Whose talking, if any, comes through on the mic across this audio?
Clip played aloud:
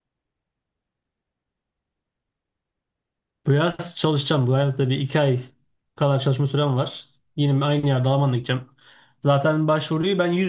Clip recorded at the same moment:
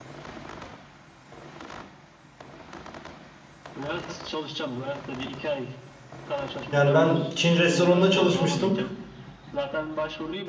both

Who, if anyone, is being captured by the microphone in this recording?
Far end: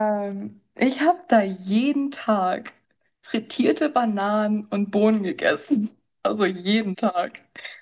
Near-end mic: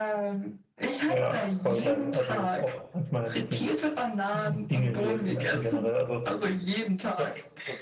both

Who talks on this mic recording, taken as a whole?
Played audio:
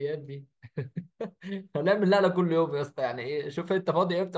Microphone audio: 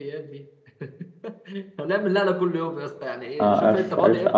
both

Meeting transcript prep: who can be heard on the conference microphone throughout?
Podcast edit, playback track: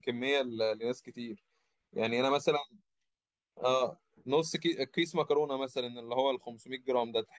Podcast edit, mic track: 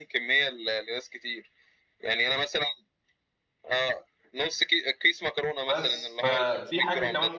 both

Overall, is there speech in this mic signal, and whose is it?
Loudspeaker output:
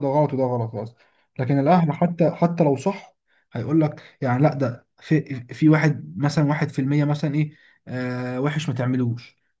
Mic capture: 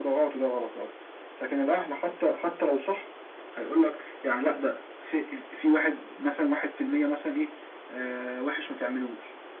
echo only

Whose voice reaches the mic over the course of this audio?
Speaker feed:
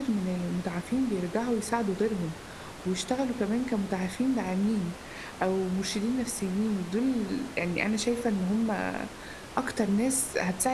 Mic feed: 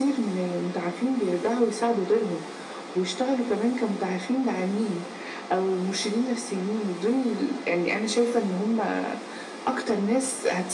echo only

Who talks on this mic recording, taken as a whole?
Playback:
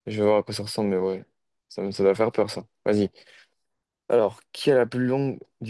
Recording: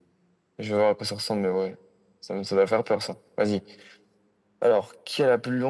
echo only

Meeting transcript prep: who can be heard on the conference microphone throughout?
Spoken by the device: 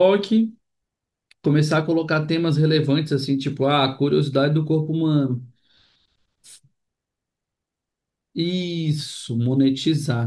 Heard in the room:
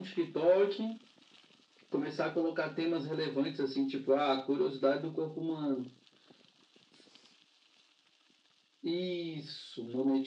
echo only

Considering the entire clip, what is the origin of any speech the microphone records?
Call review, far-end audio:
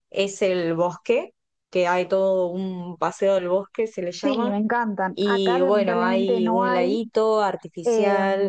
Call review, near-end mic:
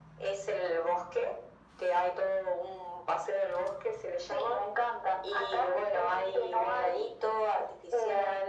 echo only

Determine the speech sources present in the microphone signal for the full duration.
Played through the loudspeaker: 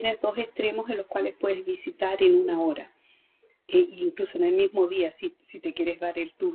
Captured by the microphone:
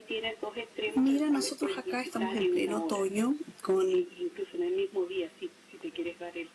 both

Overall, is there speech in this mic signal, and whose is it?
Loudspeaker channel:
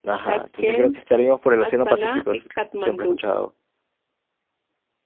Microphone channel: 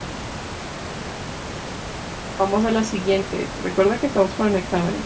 user only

